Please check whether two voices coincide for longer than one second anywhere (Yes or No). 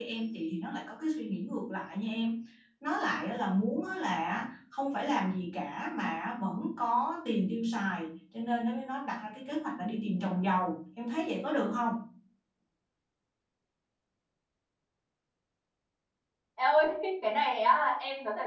No